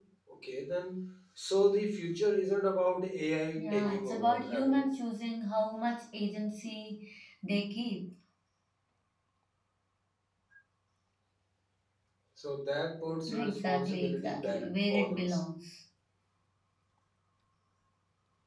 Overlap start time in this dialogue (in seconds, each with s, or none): 3.6 s